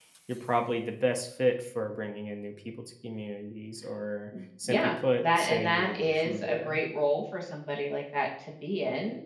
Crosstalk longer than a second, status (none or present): present